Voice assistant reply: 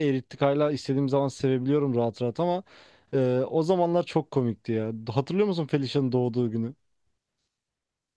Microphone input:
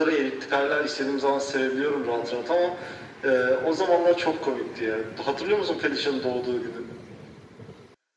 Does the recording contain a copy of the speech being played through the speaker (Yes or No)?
Yes